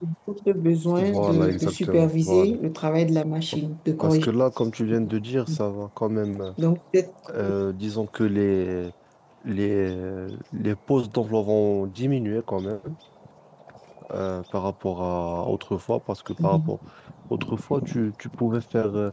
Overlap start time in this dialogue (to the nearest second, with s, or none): 1 s